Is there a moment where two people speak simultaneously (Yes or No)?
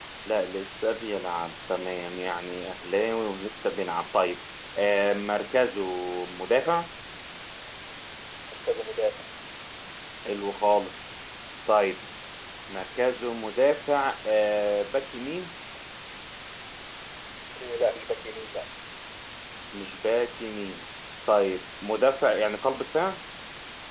No